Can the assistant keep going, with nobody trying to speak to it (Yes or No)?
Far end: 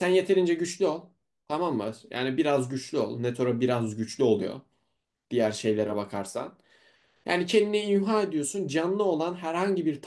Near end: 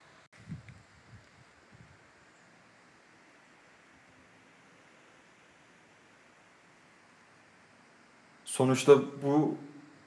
No